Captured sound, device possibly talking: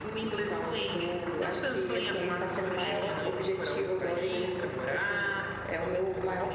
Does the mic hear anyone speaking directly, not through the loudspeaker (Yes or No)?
No